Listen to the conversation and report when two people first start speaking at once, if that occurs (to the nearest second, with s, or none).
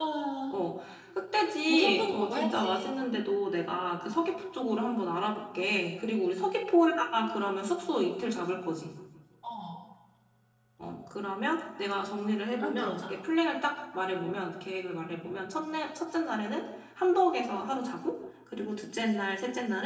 2 s